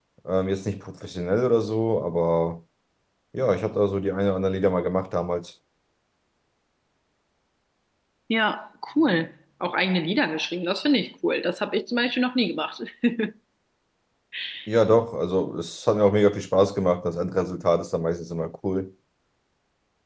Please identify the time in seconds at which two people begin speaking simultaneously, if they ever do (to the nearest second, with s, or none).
none